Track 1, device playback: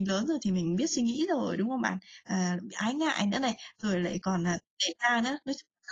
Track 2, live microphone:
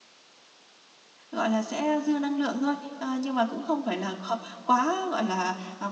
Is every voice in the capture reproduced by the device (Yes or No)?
No